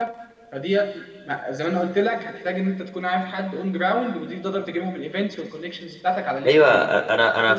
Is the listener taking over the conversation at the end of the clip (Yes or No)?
Yes